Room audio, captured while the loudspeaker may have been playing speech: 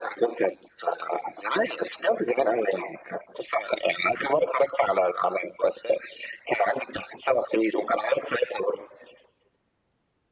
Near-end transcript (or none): none